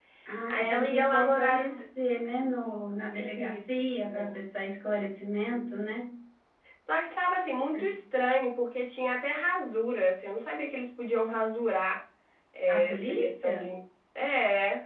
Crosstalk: present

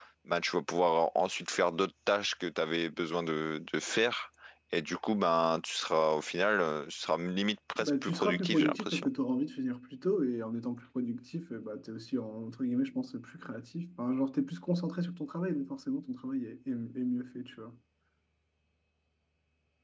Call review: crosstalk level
present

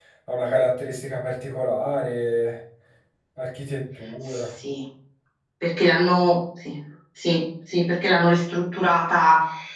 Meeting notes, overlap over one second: none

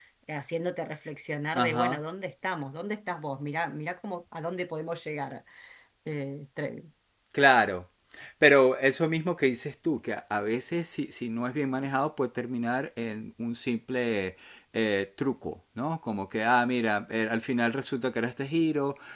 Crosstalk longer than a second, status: none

